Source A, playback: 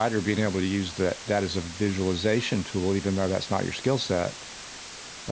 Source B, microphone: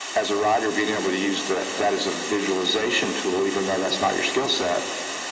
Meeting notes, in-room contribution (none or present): none